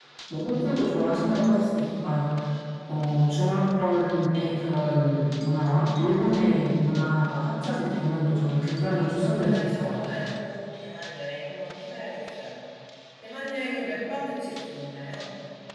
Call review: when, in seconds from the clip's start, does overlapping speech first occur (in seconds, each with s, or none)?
8.9 s